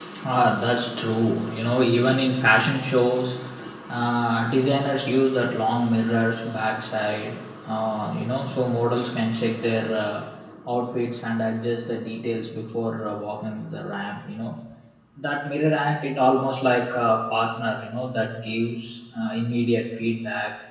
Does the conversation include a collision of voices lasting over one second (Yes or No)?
No